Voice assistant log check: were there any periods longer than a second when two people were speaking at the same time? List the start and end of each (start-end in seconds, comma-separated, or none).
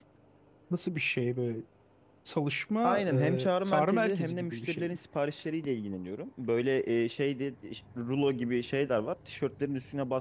2.8-5.0